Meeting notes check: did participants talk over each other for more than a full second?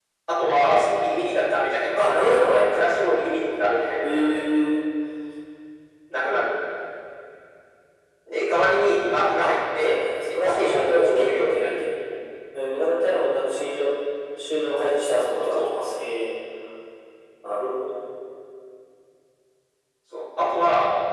Yes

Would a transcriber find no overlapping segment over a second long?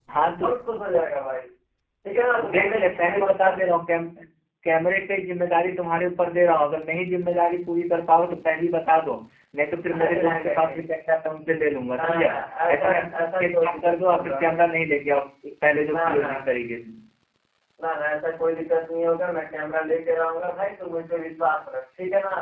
No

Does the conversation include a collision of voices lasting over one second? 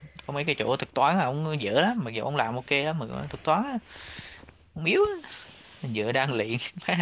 No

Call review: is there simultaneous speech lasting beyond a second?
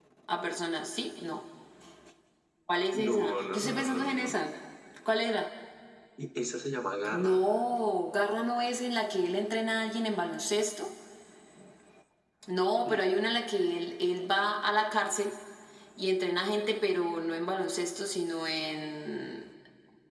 Yes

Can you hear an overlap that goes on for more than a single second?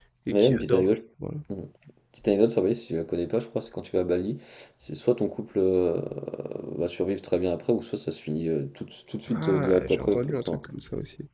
Yes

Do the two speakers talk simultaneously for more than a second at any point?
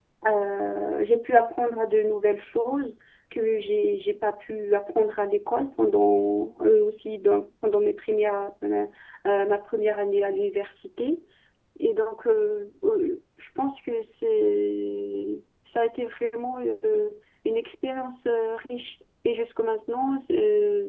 No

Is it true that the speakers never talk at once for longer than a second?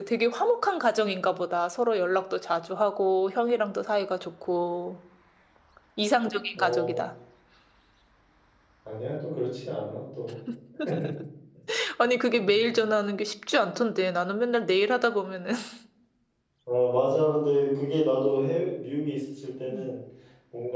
Yes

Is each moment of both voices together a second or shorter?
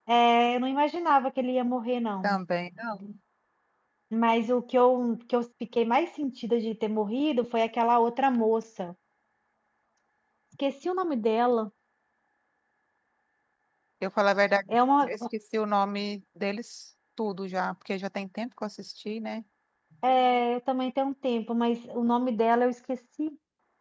Yes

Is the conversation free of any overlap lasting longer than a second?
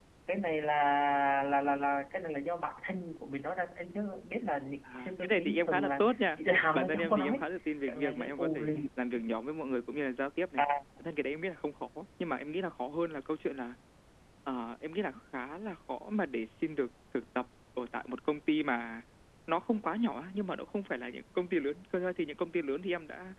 No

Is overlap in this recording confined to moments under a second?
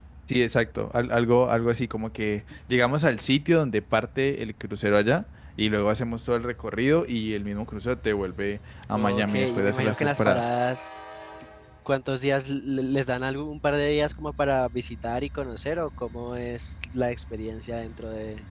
No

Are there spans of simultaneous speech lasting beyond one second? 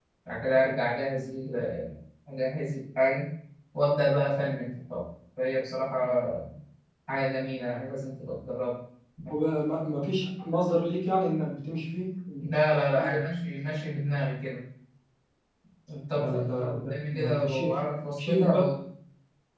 Yes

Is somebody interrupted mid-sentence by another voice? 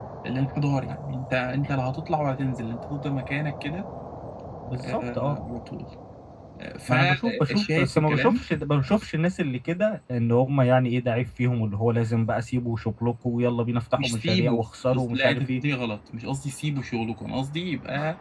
Yes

